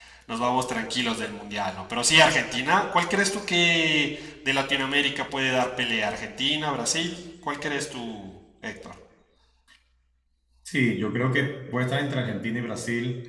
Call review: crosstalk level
none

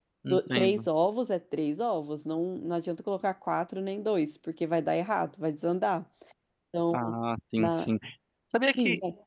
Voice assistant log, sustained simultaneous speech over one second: none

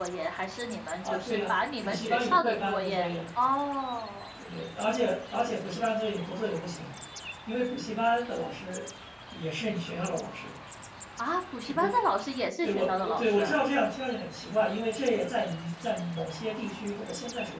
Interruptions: present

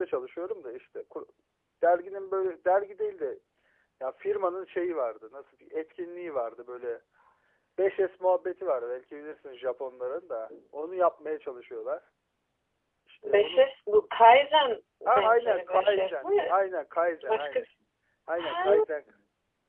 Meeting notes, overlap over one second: present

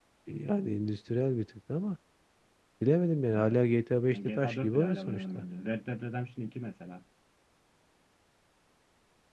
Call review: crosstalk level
present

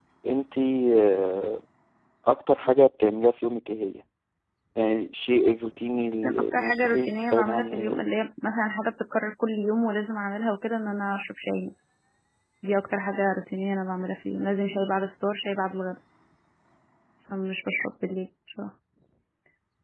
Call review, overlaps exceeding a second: present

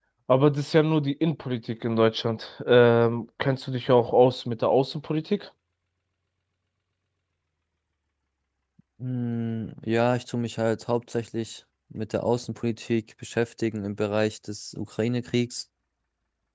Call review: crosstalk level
none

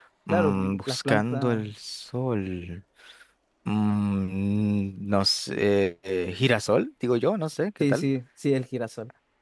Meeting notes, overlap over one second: present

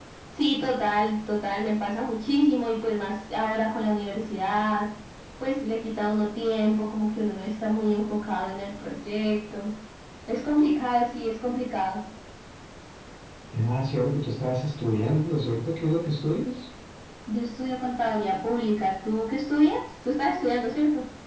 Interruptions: none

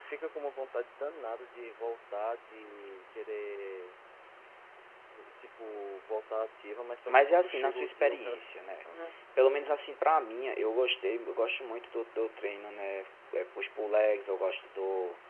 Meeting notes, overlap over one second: present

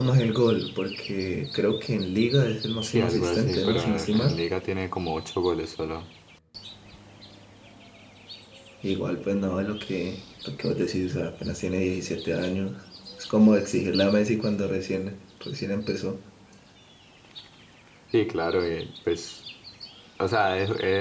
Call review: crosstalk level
present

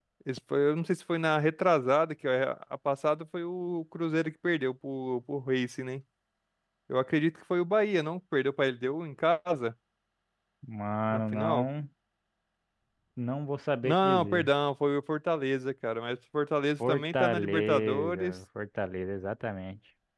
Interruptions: present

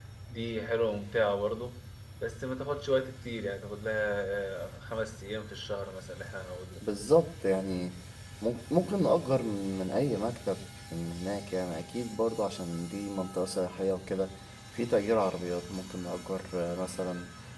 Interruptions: none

